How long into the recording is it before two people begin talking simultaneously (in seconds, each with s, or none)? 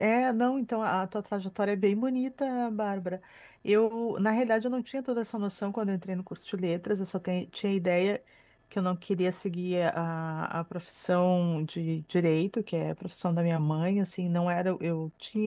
none